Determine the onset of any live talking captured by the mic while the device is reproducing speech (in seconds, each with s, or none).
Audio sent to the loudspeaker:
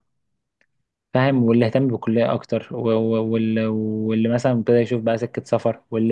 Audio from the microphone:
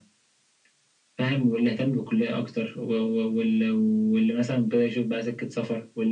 none